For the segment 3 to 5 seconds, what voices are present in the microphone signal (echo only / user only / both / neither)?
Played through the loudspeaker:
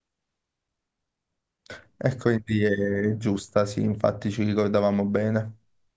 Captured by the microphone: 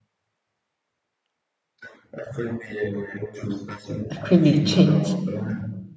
both